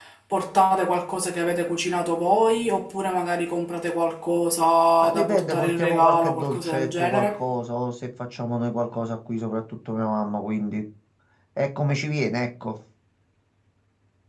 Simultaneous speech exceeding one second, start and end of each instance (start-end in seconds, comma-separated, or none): 5.0-7.4